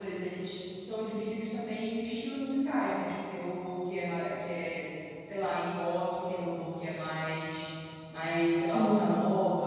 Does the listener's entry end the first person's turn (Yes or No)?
No